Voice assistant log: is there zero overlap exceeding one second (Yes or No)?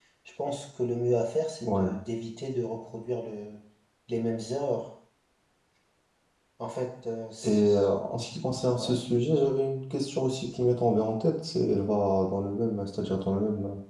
Yes